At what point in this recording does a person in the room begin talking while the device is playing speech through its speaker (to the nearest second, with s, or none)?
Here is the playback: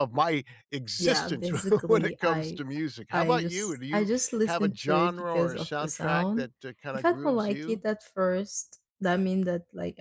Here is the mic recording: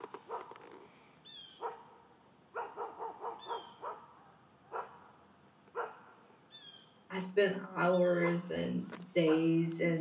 7 s